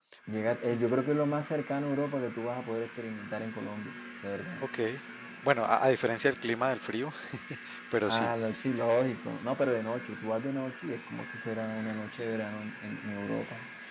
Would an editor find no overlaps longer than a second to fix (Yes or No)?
Yes